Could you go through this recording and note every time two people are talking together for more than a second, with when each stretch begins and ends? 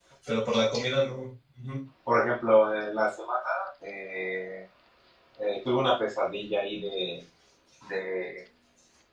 none

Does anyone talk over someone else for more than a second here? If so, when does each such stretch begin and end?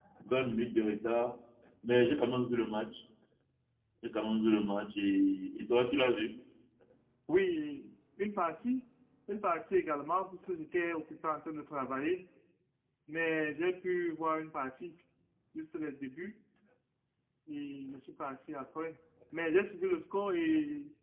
none

